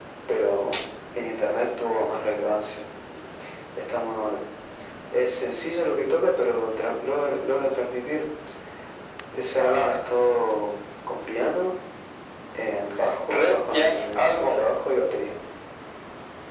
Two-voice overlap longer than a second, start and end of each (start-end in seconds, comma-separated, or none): 13.3-14.6